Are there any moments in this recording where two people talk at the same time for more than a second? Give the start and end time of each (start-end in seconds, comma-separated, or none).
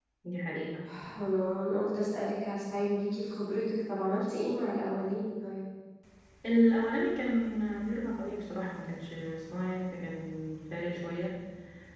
none